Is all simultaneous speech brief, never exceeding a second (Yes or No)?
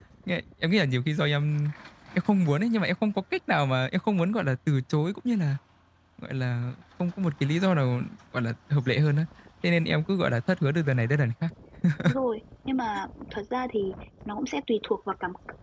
Yes